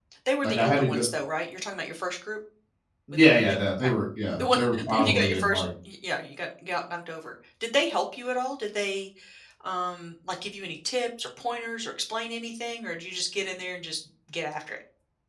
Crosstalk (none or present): present